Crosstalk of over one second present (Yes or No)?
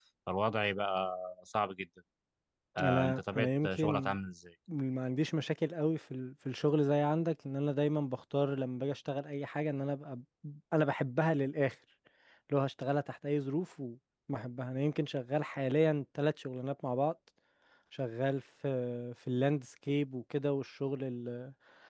Yes